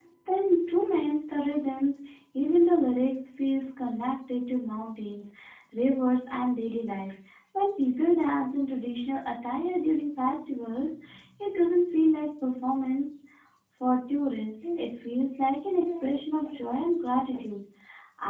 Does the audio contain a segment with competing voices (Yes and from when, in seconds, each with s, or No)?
No